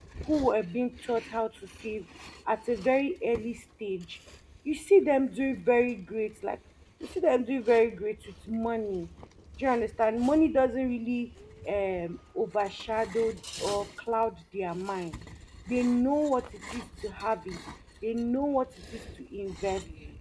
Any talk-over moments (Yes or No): No